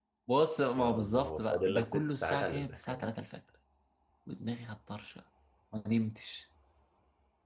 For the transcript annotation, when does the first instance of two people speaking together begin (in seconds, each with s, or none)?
0.8 s